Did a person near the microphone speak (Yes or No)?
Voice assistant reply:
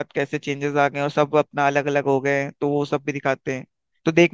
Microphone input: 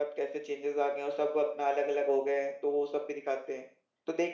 No